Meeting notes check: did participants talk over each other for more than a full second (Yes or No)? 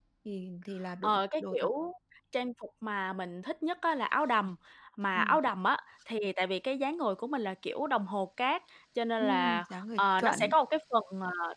Yes